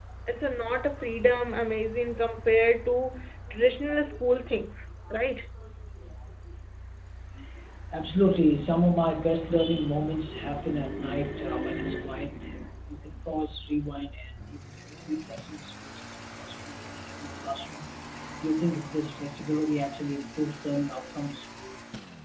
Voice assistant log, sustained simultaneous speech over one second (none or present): none